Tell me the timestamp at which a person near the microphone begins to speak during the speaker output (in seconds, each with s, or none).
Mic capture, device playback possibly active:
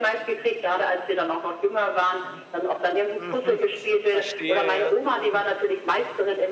1.7 s